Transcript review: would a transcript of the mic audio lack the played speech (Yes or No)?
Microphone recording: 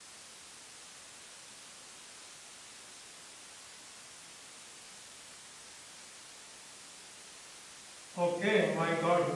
Yes